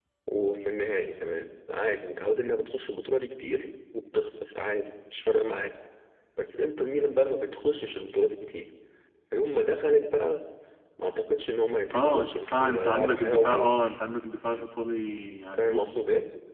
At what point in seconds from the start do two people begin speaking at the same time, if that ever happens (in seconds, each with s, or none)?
11.9 s